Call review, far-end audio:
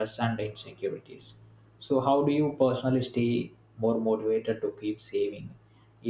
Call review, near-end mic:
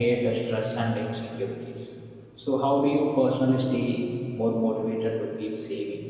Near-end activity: none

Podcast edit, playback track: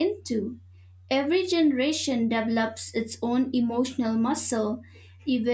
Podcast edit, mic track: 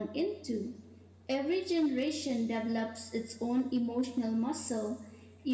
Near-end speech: none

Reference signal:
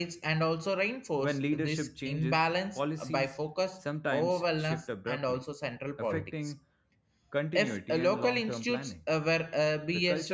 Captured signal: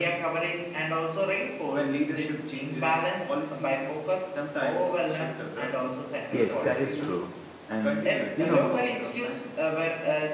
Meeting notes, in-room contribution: present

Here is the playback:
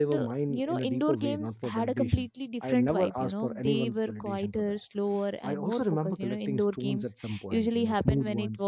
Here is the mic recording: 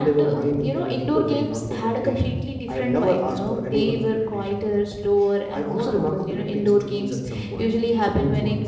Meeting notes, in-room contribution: none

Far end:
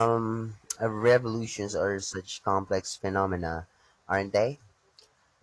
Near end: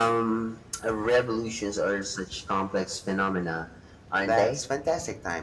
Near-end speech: present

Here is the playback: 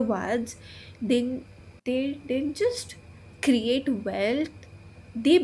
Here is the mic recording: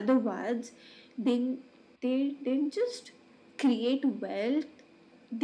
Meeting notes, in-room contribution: none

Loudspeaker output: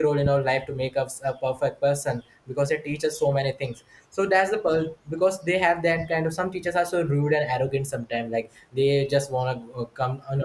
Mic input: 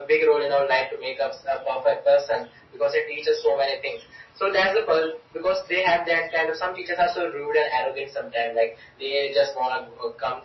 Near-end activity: none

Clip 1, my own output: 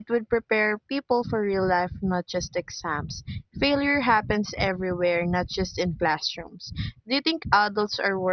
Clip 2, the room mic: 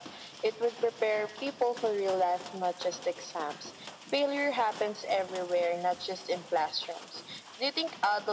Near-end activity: none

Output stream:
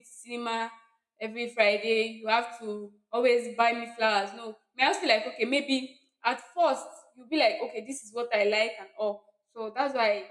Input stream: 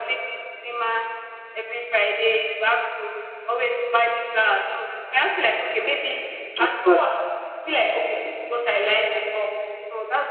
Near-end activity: present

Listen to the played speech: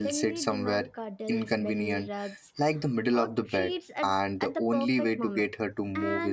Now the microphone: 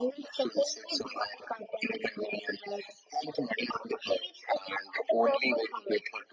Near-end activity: none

